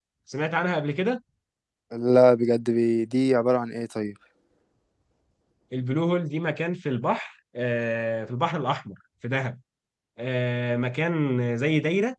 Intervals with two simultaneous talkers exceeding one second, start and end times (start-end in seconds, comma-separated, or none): none